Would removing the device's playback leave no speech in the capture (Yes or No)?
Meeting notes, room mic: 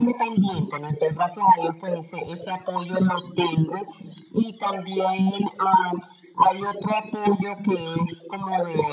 Yes